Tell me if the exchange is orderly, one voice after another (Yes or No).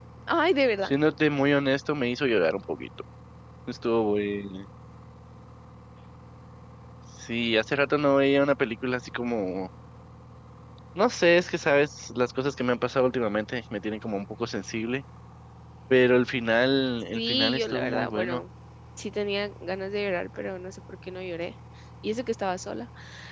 No